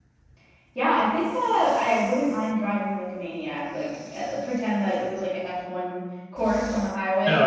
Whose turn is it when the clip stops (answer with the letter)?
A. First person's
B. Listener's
A